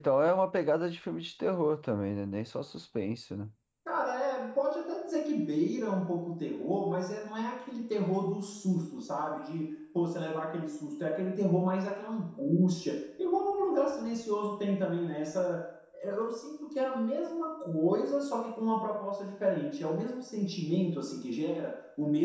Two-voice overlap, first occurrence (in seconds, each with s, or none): none